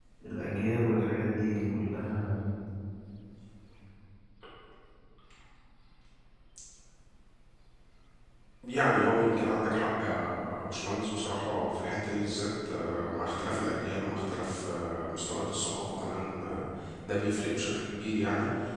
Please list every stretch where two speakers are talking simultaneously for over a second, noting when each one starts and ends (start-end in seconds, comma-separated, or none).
none